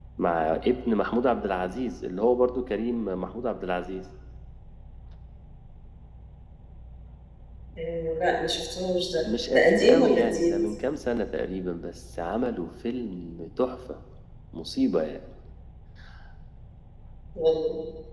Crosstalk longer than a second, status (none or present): present